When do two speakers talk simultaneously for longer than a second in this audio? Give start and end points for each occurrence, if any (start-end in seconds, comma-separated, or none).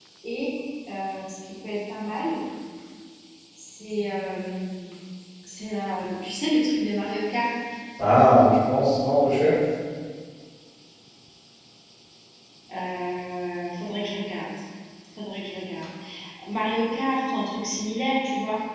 none